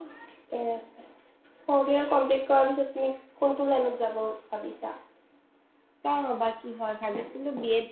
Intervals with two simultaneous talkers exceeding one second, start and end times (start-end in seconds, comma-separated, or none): none